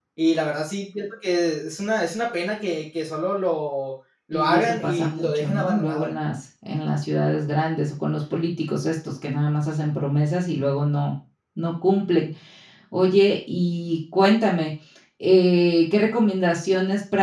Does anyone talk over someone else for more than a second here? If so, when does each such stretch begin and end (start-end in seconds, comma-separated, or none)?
4.3-6.1